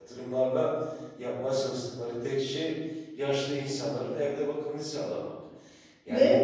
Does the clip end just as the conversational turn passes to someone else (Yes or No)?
No